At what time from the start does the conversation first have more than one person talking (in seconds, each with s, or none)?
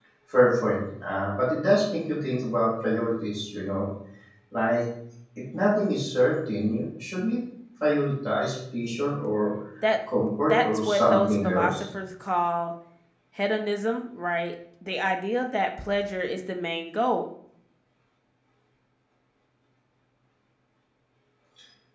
10.5 s